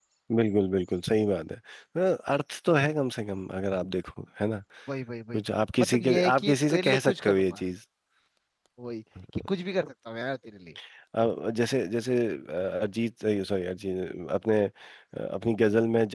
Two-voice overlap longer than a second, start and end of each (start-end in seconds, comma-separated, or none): 5.8-7.6